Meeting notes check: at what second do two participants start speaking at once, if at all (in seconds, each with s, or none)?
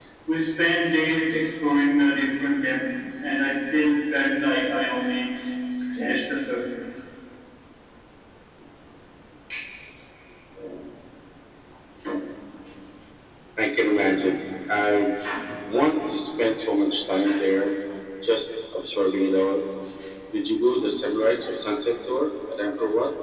none